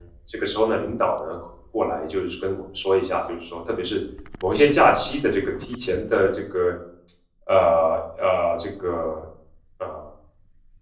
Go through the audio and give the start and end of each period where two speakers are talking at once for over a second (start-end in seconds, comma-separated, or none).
none